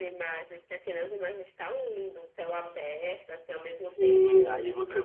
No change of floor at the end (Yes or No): No